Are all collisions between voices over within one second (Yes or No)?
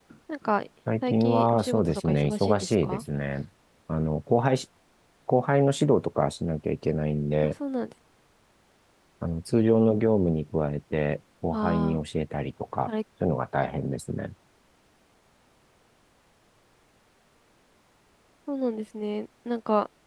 No